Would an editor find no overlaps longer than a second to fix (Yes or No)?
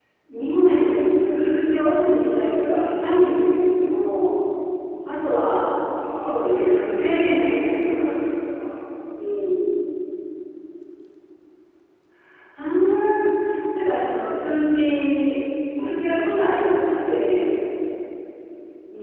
No